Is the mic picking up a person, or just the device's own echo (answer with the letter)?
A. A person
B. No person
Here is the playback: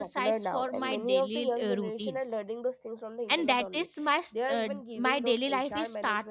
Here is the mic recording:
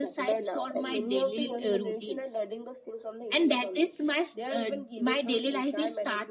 B